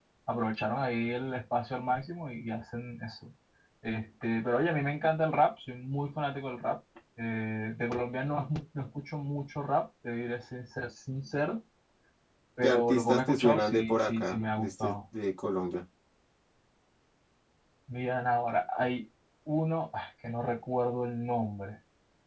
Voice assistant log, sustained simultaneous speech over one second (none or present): present